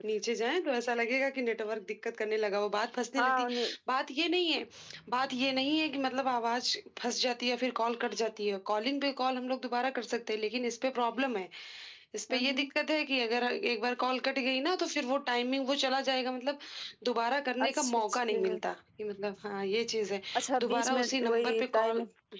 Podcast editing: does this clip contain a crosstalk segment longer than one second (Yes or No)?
Yes